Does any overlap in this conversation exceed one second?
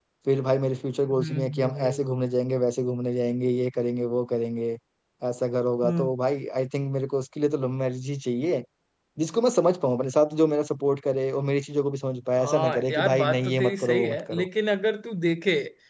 Yes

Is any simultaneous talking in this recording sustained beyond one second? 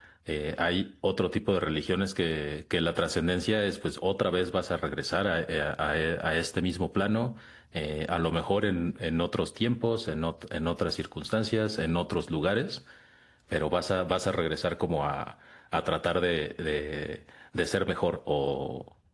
No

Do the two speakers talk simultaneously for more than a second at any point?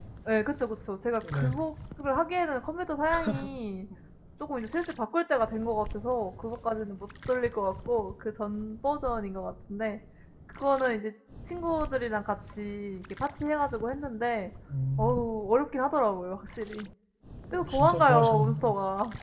Yes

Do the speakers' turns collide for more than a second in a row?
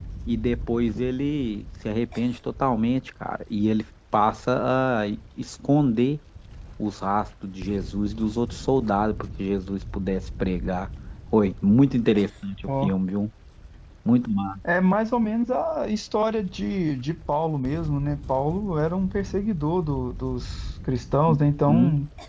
No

